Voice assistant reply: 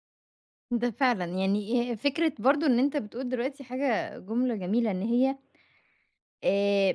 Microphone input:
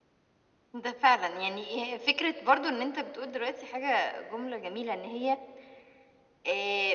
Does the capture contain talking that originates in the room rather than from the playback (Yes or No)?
No